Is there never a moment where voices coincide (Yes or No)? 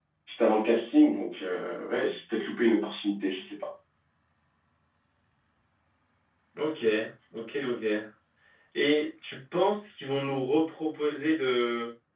Yes